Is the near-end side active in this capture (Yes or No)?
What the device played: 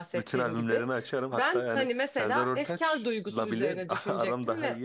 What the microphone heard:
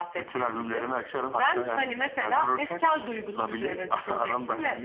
No